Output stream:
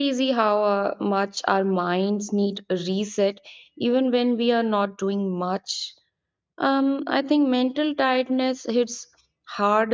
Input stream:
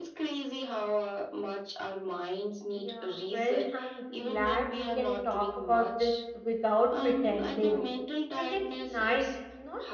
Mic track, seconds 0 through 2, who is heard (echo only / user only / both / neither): echo only